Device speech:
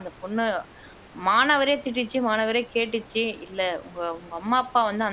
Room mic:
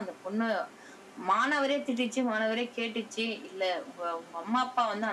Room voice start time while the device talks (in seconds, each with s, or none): none